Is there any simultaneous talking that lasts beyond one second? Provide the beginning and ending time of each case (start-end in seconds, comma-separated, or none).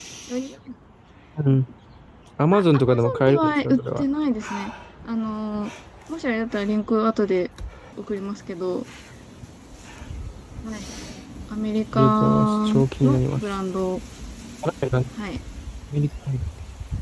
2.5-4.0, 11.9-13.4